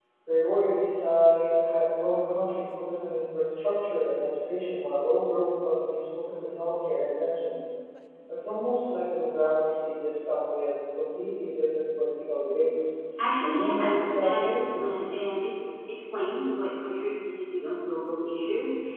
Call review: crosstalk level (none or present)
present